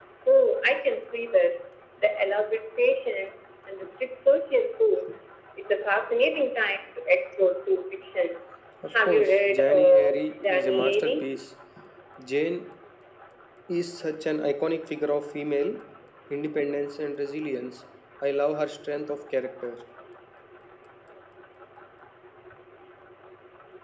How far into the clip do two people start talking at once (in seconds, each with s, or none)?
9.0 s